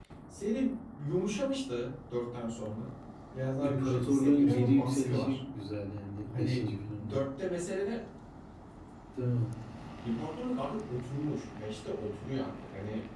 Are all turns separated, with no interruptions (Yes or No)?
No